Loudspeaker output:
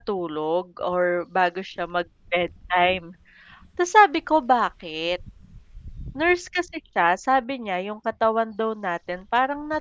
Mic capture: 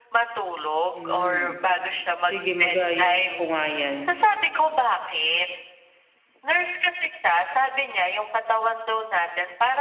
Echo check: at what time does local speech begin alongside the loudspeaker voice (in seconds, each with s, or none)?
0.9 s